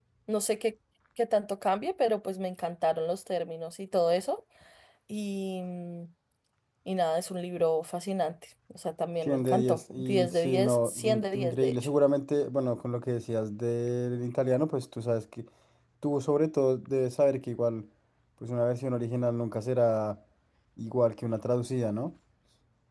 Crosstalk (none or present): present